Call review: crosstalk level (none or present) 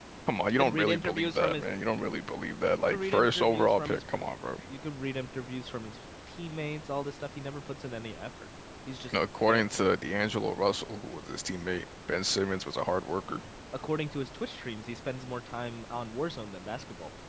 present